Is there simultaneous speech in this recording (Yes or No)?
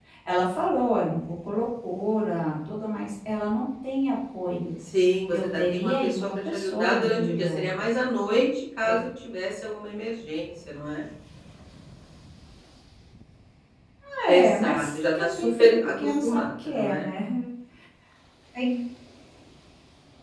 Yes